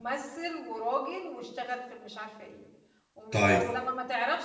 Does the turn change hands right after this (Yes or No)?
No